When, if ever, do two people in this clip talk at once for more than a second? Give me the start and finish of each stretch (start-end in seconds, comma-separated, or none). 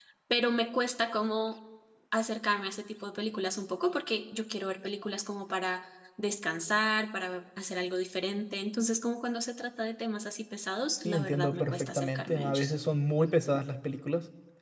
11.1-12.7